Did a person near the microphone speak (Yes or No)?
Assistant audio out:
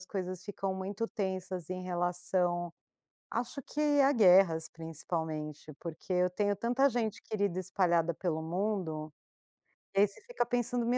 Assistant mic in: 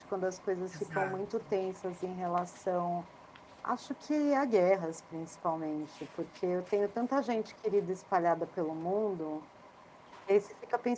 Yes